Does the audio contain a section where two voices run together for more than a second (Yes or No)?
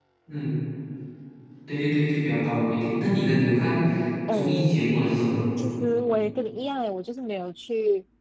No